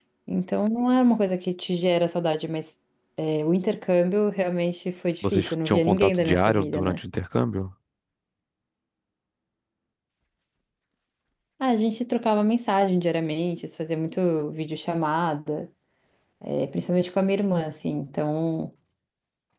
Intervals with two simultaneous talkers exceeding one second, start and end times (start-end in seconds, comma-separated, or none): 5.2-7.0